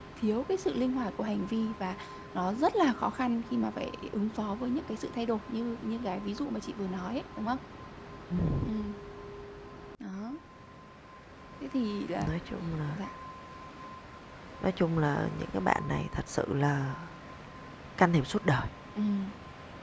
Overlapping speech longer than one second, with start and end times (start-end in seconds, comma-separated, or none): none